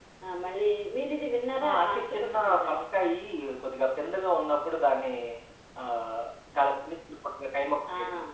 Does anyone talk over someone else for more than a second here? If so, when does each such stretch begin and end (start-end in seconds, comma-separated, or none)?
1.6-2.8